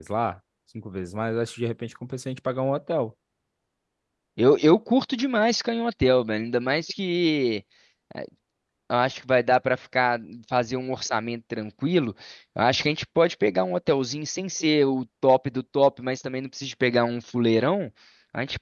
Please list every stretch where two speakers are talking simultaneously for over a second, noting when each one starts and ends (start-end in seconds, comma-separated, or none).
none